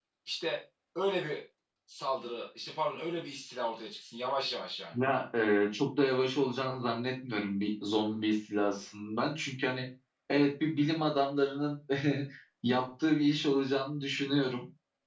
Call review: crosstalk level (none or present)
none